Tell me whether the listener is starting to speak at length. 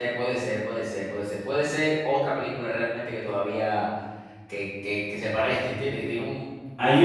Yes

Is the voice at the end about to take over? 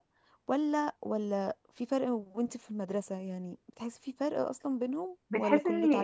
Yes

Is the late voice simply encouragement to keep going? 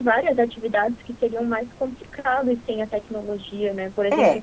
Yes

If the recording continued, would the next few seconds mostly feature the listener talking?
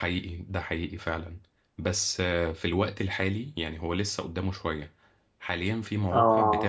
No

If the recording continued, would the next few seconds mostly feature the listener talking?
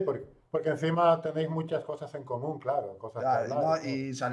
Yes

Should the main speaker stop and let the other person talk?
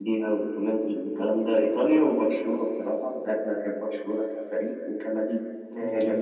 Yes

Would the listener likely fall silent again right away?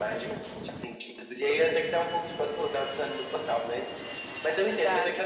Yes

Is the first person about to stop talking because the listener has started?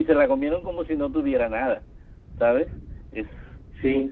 Yes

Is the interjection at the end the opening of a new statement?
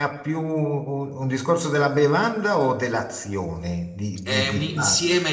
Yes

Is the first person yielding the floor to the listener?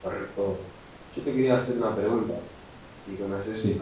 No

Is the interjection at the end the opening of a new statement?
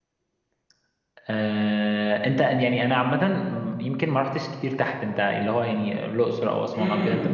Yes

